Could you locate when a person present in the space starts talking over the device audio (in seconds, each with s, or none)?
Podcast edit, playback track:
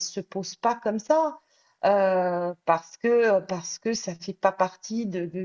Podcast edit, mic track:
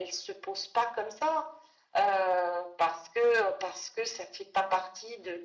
none